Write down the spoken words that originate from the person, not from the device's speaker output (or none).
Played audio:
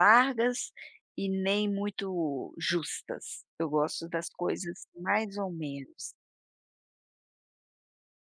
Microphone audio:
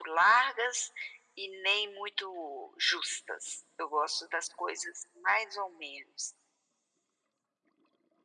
none